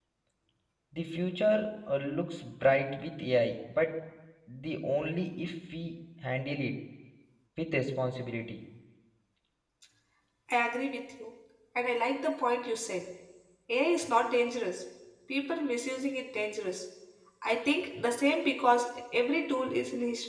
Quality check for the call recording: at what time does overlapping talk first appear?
none

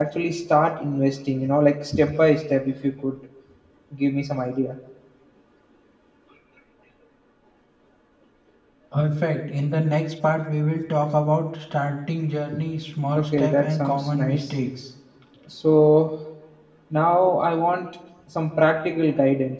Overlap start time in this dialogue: 13.2 s

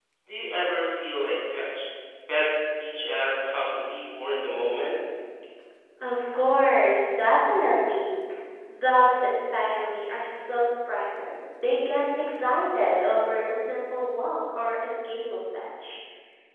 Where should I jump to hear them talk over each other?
none

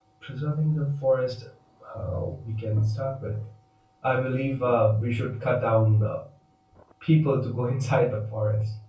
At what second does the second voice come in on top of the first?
none

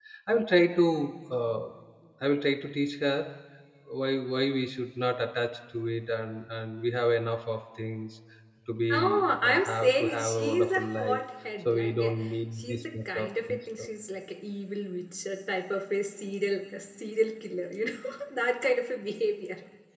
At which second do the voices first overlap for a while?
8.9 s

